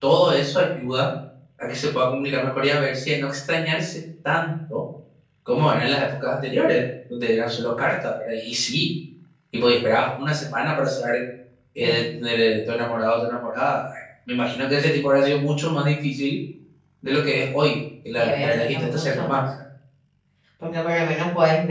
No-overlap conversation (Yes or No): No